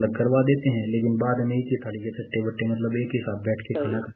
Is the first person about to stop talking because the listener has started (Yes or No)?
Yes